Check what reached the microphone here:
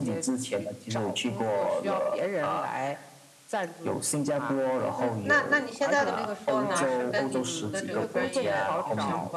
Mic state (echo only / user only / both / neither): both